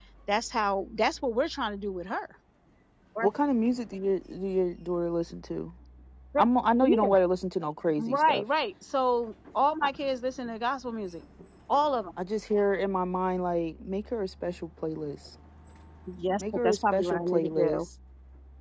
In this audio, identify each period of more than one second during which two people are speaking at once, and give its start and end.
16.4-17.9

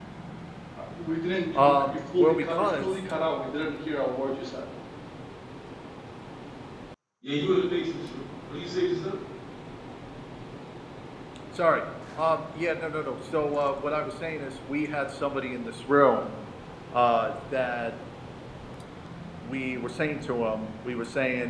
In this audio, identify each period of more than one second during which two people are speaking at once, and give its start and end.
1.6-2.9

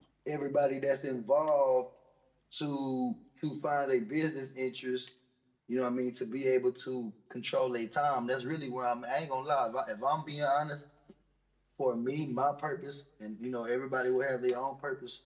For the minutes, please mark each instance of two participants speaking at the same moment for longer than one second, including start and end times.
none

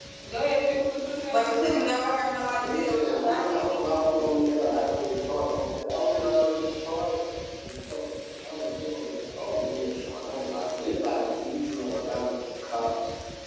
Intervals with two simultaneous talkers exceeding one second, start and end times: 2.5-3.8

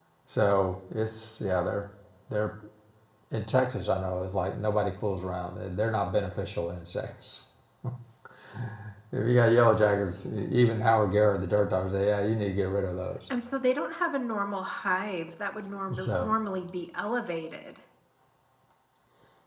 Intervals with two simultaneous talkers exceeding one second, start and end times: none

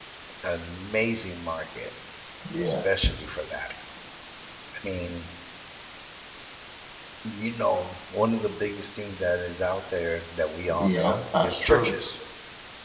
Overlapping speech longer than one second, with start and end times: 10.8-12.0

